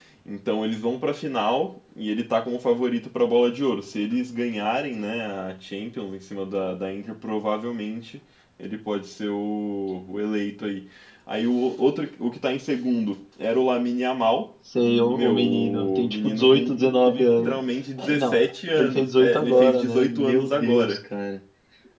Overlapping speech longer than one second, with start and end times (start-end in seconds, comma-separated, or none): 15.0-16.8, 18.8-21.0